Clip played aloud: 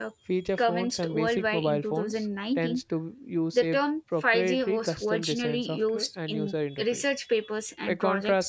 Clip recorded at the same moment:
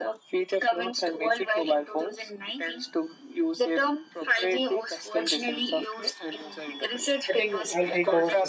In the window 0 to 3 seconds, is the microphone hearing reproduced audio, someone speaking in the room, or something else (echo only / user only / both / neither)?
echo only